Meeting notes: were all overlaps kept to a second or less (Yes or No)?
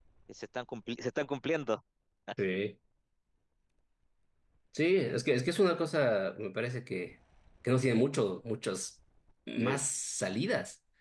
Yes